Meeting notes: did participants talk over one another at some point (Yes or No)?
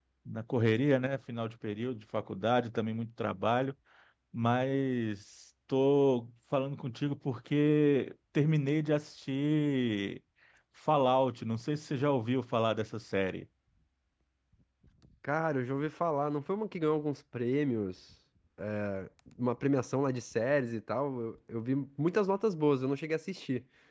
No